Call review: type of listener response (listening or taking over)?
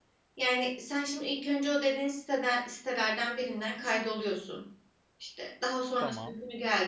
listening